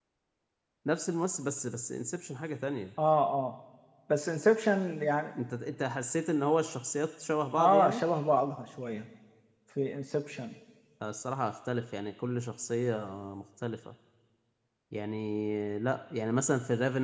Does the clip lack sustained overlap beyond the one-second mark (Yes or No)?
Yes